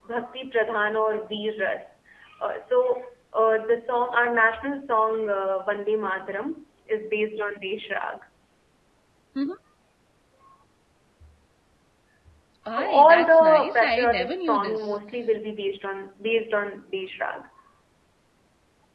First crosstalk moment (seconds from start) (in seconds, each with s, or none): 12.7 s